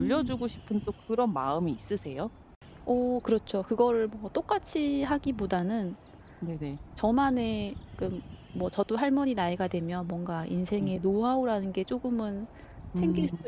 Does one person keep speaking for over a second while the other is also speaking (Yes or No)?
No